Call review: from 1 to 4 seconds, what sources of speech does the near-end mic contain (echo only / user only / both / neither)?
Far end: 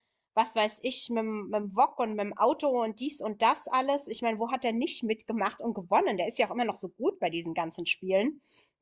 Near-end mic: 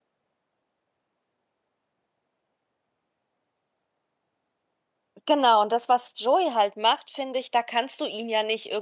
neither